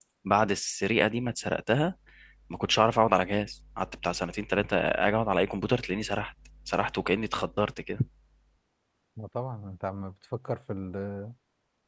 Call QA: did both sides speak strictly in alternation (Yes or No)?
Yes